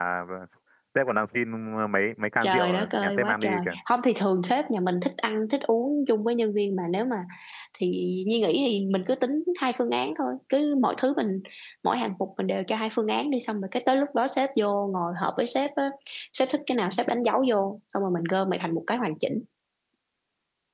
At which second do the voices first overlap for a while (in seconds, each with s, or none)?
2.4 s